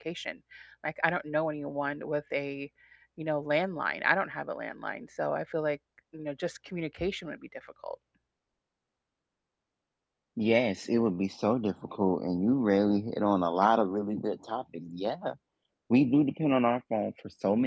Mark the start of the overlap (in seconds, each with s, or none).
none